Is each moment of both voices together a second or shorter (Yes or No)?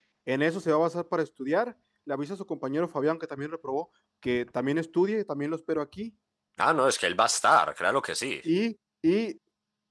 Yes